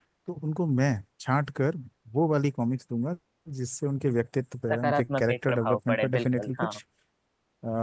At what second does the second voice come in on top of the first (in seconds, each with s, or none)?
4.7 s